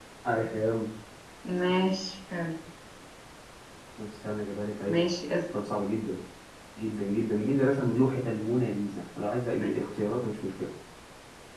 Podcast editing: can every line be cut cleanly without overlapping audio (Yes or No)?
Yes